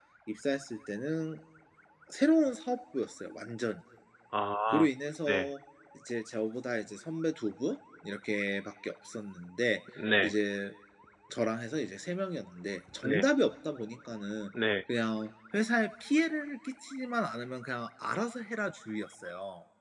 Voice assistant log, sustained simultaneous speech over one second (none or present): none